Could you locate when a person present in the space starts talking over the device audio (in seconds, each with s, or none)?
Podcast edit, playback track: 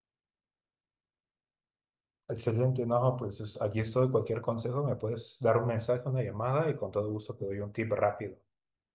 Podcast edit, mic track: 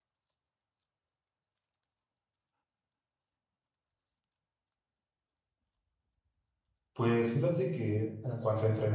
6.9 s